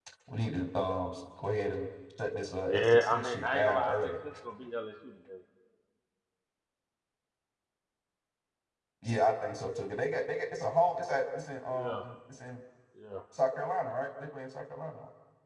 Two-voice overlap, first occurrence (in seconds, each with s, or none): 2.7 s